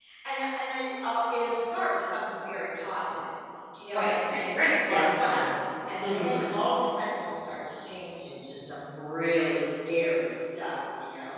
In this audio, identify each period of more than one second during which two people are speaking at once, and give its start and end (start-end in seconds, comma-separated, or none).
3.9-5.5